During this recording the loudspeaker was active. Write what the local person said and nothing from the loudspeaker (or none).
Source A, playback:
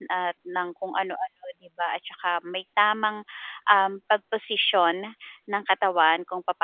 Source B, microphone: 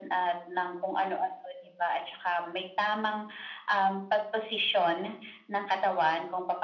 none